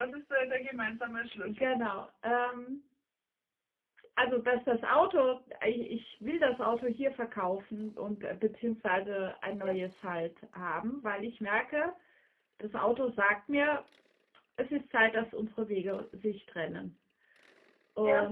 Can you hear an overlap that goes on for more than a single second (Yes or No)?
No